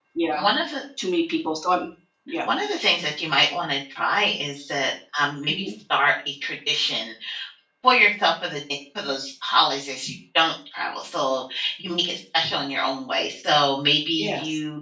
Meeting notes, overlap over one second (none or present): none